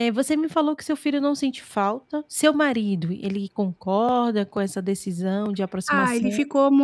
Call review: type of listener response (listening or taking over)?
taking over